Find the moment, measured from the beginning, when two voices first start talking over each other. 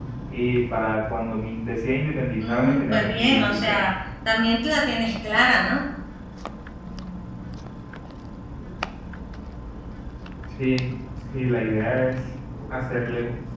2.4 s

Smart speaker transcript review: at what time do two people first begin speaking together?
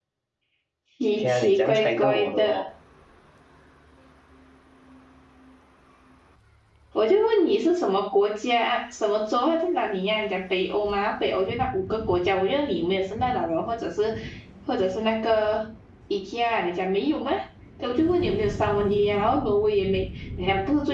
1.2 s

